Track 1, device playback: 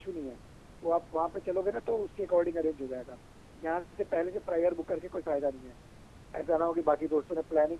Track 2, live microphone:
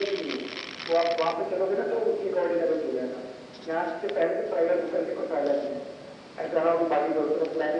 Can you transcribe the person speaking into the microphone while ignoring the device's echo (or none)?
none